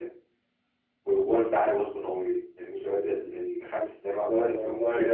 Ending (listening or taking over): listening